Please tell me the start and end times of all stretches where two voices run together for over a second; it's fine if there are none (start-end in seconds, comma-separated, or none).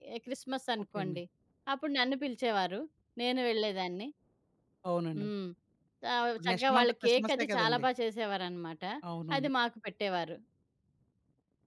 6.4-7.8